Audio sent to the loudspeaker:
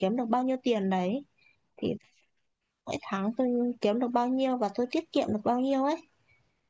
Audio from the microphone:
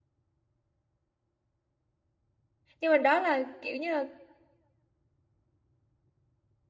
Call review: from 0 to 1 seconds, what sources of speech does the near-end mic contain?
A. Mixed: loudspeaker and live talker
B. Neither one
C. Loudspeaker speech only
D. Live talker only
B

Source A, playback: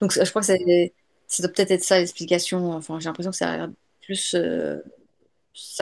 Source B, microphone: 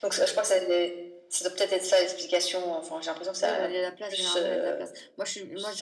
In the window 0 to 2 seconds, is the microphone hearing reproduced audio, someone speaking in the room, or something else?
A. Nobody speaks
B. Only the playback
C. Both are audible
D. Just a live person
B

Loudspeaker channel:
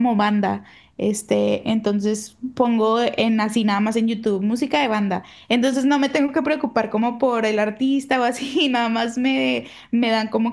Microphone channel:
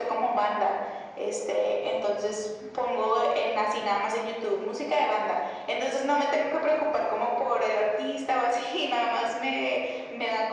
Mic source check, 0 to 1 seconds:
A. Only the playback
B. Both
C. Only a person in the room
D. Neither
A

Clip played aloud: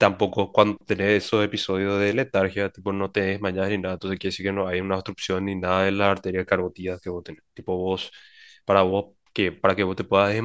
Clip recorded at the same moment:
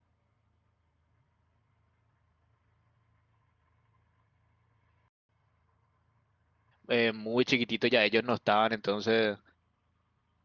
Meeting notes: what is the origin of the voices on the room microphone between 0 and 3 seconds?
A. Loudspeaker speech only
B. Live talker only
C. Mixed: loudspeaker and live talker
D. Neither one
D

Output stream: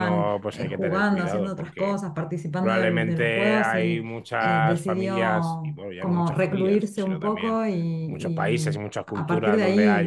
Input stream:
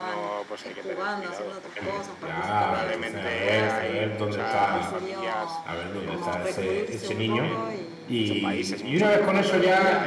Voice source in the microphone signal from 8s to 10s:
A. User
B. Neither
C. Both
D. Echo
C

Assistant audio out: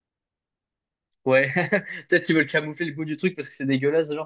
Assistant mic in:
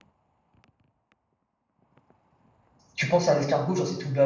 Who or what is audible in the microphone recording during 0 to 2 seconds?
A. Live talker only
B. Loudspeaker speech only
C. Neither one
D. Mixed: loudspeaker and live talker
C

